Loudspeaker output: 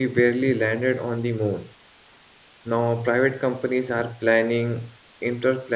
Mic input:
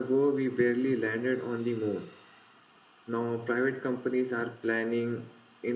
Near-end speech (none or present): none